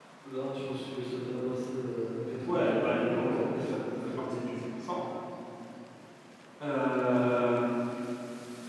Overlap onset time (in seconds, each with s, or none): 2.4 s